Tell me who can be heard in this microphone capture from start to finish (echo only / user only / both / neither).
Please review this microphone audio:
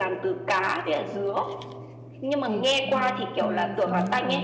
both